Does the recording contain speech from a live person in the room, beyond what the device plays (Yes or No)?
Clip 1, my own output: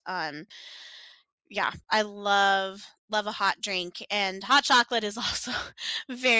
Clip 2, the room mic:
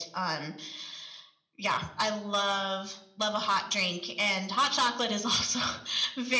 No